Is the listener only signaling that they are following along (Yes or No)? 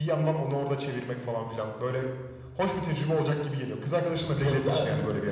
No